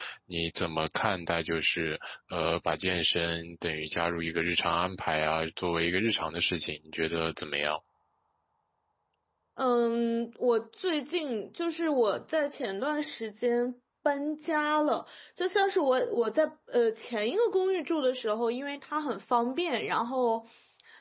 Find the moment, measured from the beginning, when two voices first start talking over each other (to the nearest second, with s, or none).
none